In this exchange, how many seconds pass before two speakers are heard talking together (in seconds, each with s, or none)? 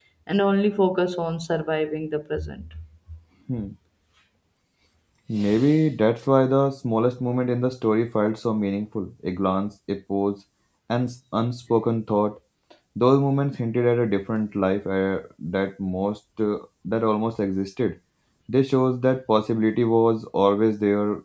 none